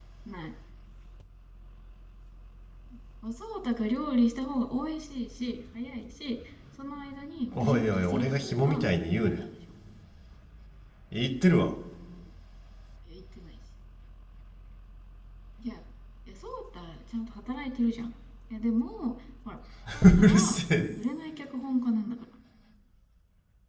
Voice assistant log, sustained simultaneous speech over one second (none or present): present